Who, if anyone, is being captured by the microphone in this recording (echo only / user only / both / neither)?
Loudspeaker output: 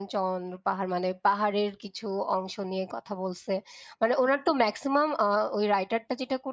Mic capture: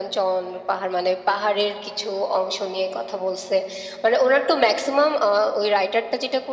echo only